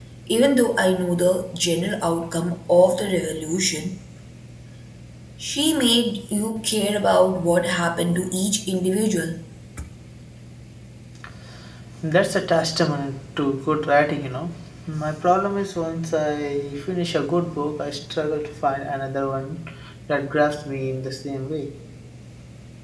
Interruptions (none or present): none